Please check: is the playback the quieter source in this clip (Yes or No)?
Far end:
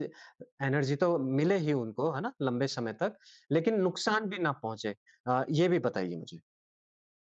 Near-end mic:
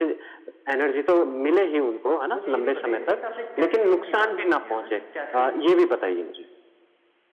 No